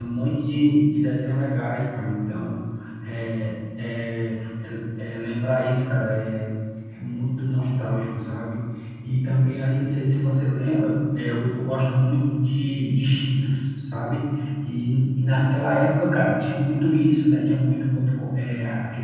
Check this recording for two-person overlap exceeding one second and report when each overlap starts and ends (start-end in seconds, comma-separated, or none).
none